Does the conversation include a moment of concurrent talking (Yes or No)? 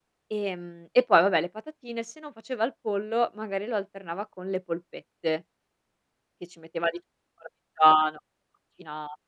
No